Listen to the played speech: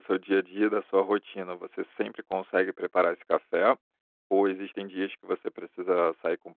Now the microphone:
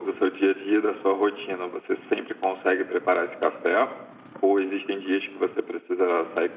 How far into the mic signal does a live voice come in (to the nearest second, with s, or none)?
none